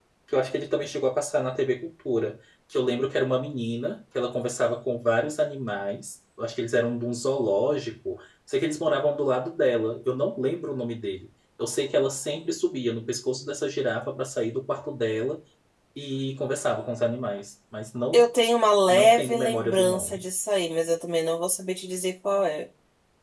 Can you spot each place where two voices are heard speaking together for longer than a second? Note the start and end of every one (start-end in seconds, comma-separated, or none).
18.9-20.2